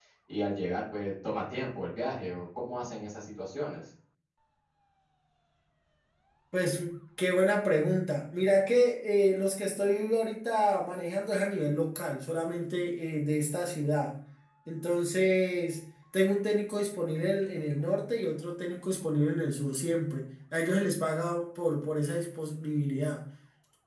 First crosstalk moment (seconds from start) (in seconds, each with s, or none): none